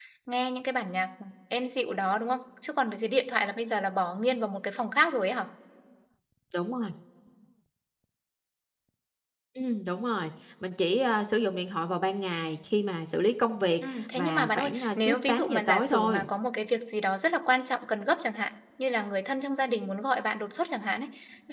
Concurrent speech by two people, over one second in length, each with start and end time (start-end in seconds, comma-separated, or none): 13.9-16.2